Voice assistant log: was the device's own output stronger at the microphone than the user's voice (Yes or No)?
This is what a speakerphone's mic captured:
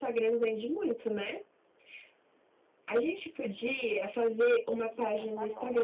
Yes